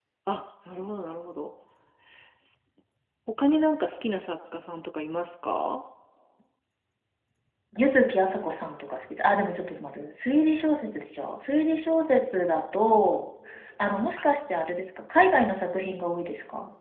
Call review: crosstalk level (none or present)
none